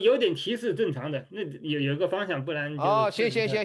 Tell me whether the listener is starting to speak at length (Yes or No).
Yes